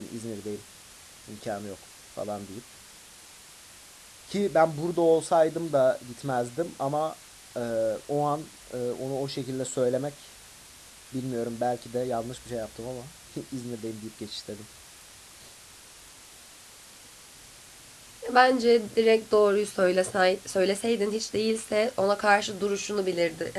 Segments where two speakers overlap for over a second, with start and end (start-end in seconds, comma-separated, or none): none